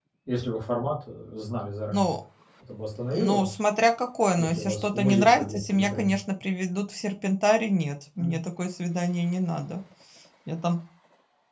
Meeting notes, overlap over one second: present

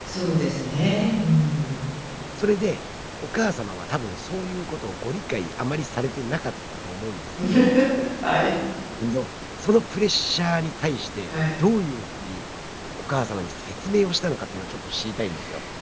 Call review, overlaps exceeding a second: none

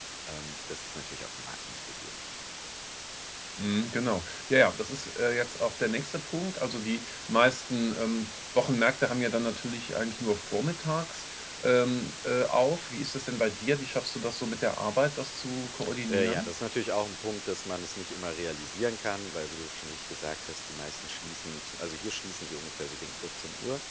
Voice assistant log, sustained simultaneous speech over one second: none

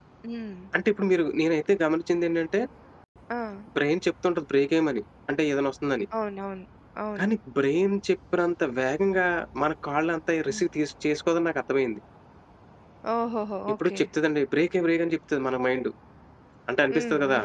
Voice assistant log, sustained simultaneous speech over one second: none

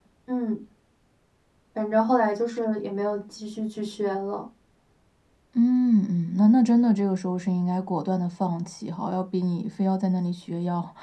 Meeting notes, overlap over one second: none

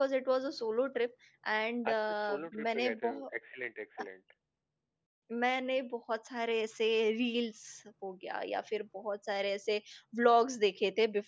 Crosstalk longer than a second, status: present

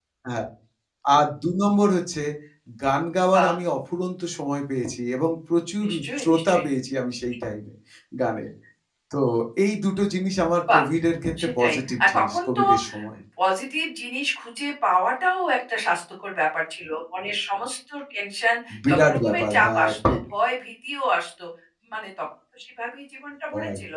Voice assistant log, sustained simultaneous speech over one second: present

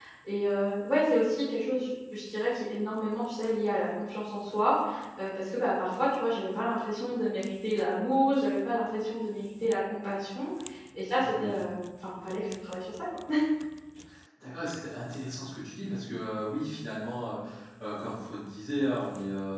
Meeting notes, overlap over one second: none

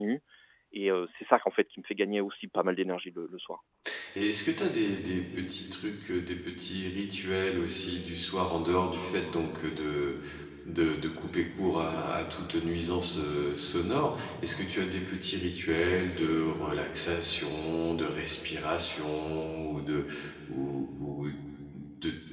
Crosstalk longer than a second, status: none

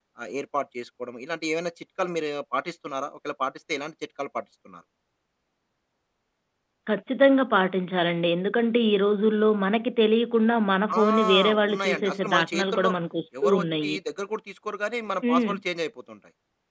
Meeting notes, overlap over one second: present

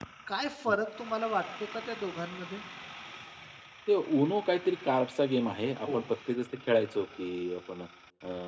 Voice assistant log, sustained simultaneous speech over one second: none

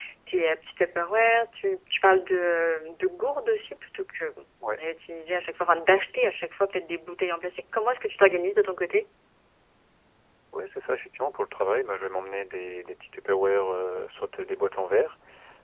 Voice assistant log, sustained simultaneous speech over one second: none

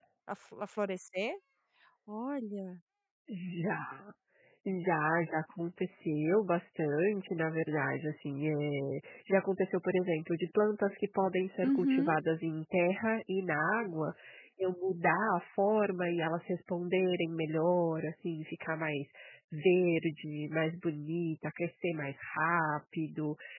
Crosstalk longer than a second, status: none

